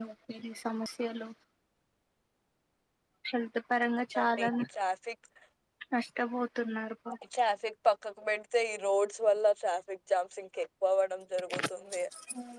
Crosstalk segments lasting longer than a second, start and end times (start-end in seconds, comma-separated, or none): none